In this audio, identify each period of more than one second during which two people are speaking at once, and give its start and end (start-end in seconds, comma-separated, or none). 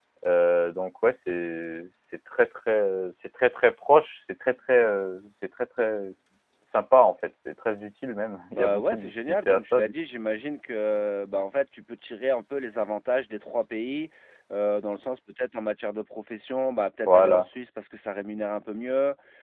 8.5-9.9